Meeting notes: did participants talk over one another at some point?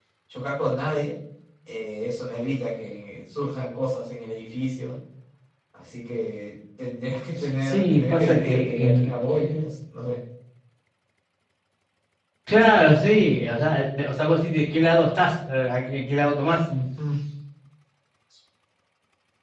Yes, from 7.4 s

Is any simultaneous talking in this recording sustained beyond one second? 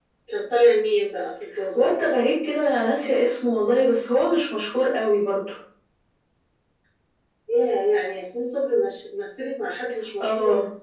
No

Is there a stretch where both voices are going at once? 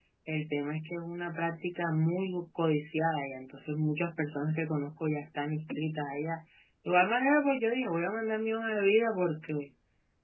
No

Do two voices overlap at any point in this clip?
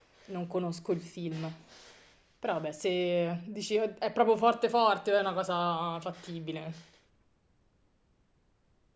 No

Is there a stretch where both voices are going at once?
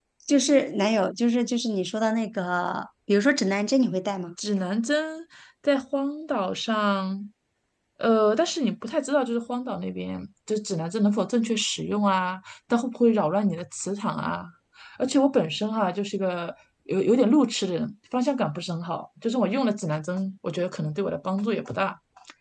No

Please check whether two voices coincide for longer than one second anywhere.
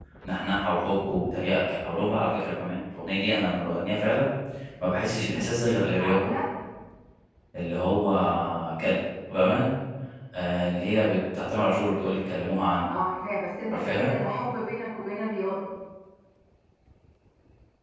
No

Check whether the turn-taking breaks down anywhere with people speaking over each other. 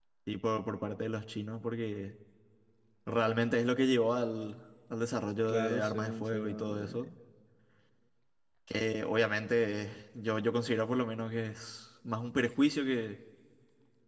Yes, from 5.5 s

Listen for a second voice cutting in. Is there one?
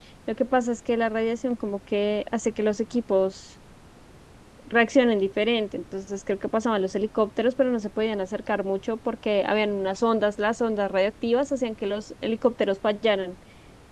No

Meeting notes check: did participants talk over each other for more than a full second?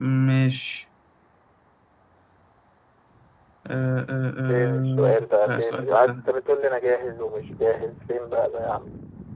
Yes, from 4.5 s

